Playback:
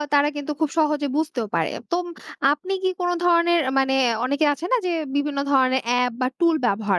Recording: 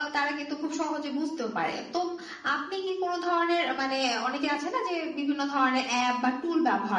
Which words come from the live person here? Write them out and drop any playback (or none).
none